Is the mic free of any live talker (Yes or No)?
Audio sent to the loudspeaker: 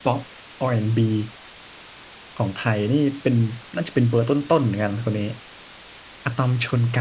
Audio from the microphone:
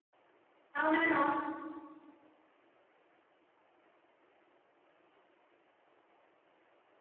No